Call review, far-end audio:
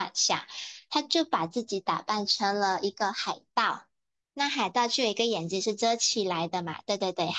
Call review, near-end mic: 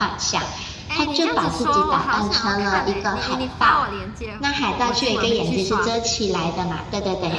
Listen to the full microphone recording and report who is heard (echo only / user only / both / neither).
both